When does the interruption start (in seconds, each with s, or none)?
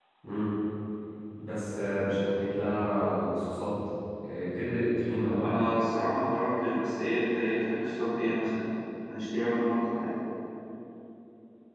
none